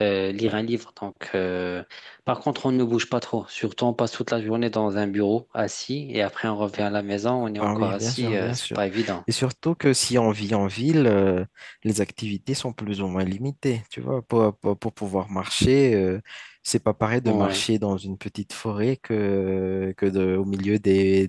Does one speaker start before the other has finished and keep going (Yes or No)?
Yes